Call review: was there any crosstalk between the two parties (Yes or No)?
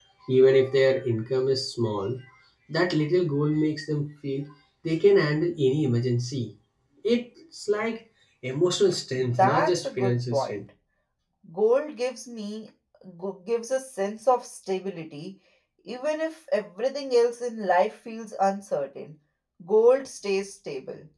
Yes